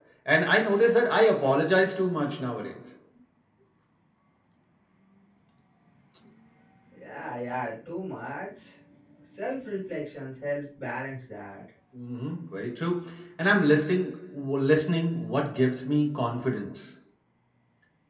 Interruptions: none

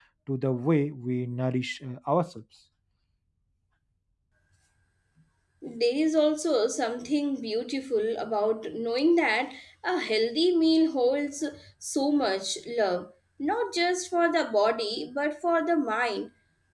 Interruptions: none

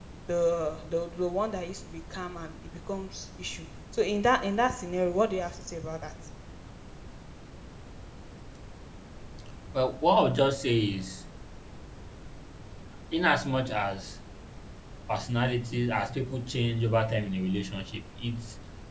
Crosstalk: none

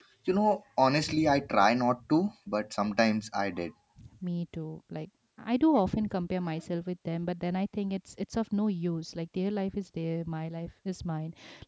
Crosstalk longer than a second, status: none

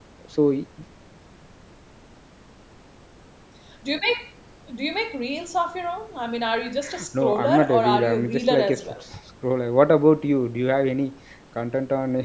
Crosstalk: present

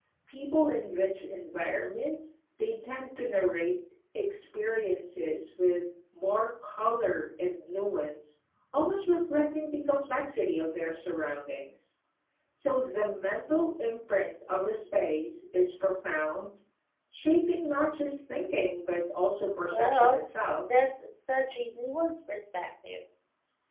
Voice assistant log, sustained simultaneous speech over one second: none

